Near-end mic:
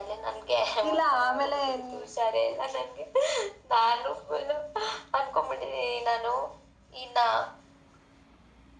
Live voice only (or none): ಇಲ್ಲ ಆಮೇಲೆನ್